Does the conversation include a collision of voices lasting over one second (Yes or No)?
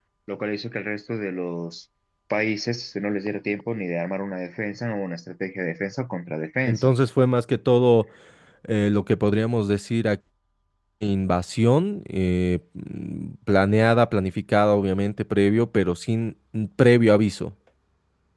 No